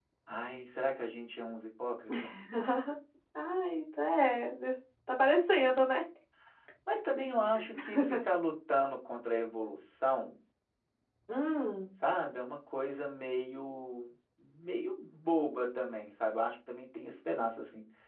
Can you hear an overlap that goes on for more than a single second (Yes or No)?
No